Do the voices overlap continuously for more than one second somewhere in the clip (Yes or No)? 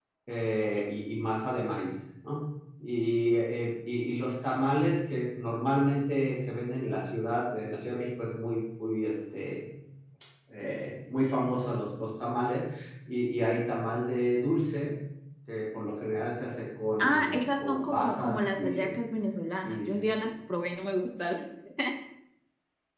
Yes